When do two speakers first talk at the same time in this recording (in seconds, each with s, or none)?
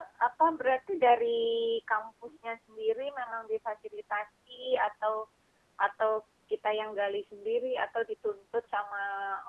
none